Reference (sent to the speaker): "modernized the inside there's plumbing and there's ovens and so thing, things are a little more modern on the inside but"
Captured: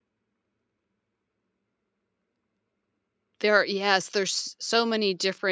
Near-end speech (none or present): present